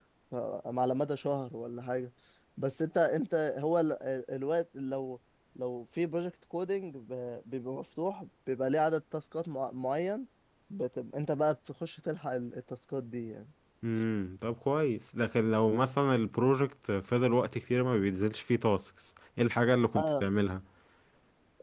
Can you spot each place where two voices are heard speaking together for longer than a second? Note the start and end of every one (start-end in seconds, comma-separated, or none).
none